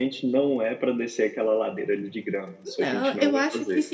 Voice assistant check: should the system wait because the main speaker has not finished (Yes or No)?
No